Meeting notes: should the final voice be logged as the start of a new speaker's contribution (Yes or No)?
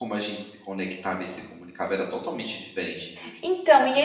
Yes